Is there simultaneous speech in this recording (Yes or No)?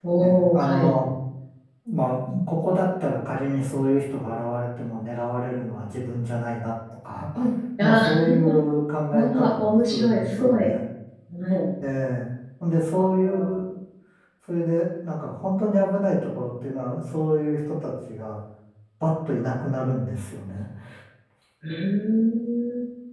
Yes